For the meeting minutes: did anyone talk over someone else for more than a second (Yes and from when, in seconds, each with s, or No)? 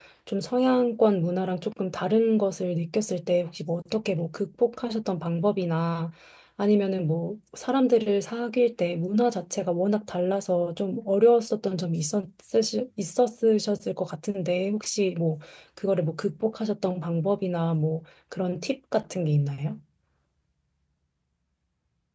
No